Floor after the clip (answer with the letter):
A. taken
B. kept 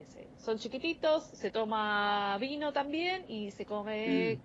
B